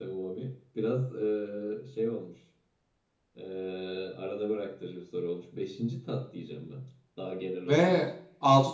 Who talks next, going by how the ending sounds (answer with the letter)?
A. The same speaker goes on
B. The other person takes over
B